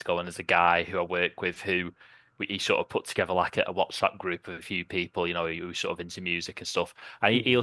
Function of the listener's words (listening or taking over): listening